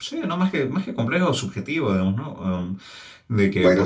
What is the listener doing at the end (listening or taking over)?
listening